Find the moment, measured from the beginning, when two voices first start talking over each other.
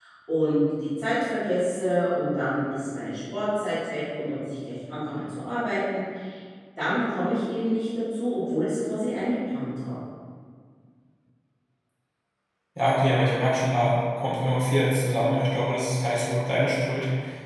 none

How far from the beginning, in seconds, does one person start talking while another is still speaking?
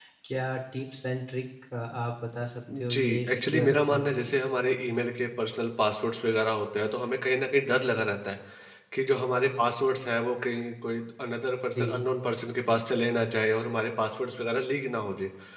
2.7 s

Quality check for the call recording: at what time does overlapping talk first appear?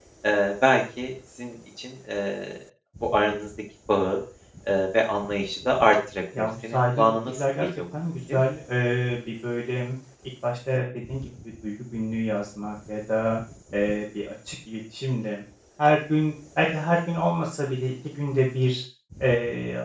6.3 s

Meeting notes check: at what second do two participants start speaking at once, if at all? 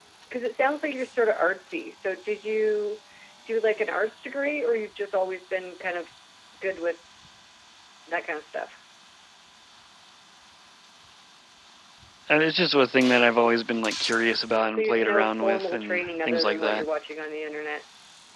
14.7 s

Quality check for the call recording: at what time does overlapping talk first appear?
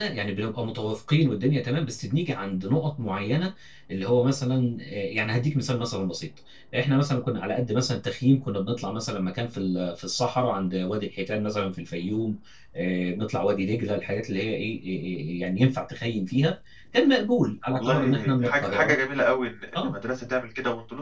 17.7 s

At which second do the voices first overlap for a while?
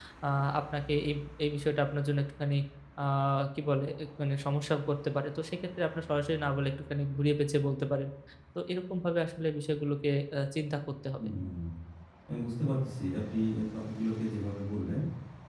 none

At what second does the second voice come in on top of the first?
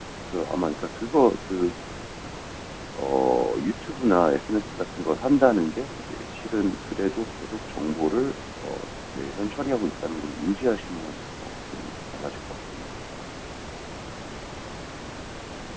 none

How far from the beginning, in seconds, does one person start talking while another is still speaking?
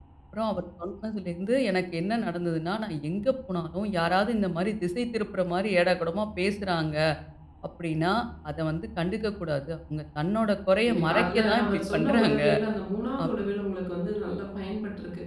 10.8 s

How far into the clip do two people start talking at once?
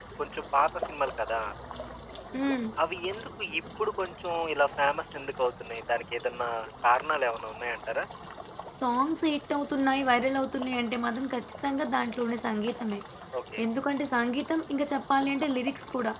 none

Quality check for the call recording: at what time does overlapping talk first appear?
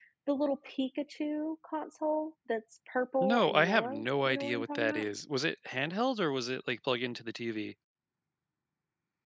3.2 s

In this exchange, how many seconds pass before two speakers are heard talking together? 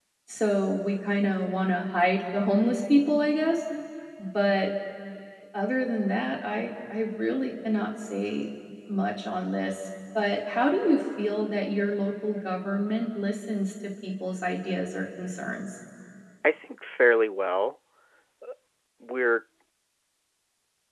none

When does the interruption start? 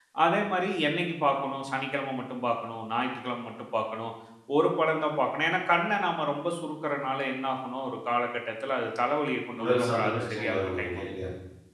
9.6 s

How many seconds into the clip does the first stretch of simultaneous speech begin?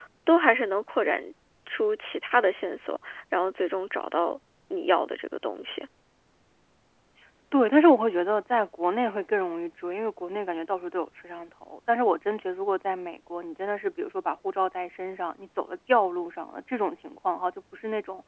none

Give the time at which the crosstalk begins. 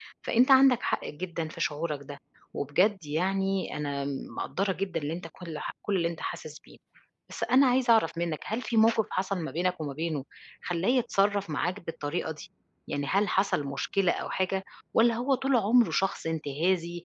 none

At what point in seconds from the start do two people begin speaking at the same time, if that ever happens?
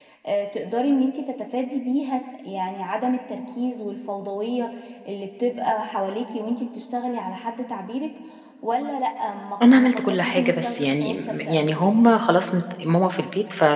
9.6 s

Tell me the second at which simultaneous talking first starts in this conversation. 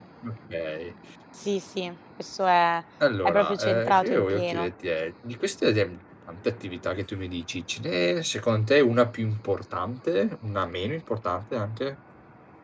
3.2 s

